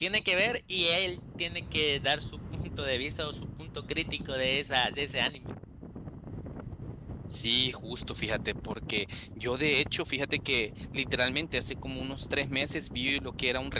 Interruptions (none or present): none